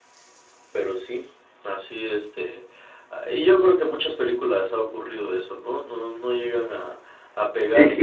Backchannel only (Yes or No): No